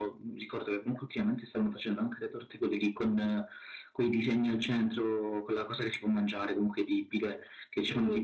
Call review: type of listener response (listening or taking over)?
listening